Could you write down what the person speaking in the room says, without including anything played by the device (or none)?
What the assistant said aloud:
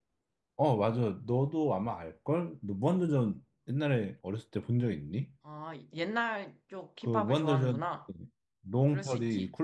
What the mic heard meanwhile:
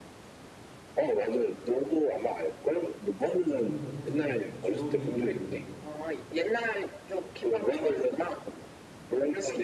요즘도 사실 GOD 노래를 들어.